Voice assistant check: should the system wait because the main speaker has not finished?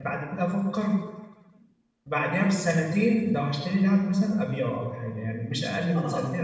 No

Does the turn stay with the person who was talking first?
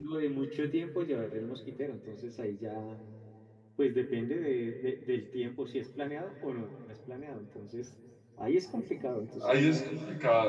No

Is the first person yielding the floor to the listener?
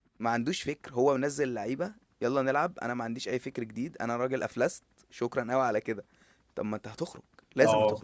No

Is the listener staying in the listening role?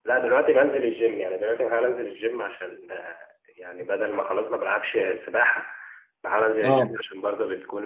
Yes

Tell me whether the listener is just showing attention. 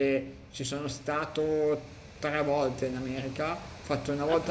Yes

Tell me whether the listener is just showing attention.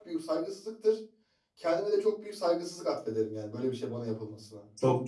No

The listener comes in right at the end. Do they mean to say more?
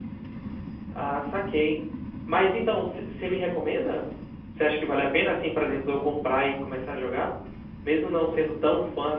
No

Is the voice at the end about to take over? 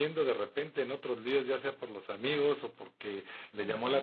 No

